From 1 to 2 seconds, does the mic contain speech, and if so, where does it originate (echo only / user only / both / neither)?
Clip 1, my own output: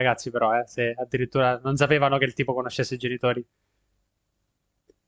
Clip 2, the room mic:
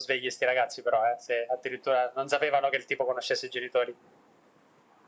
echo only